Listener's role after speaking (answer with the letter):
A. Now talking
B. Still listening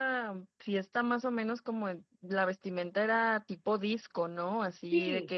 B